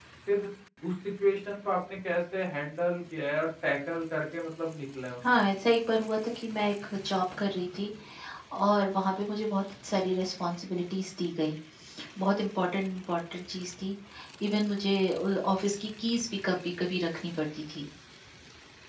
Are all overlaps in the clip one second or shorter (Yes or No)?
Yes